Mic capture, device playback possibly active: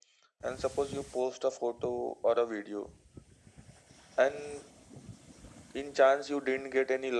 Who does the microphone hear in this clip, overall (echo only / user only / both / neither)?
echo only